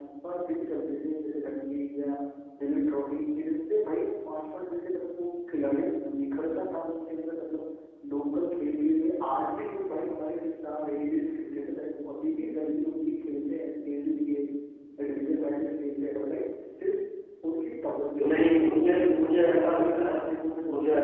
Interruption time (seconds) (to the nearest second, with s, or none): 18 s